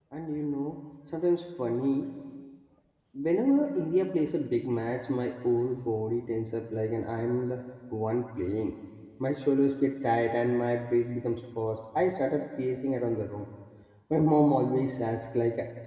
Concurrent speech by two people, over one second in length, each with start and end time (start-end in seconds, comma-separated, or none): none